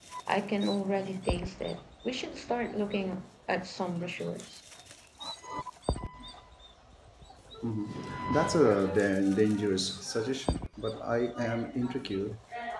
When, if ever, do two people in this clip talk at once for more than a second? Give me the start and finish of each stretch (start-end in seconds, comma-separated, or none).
none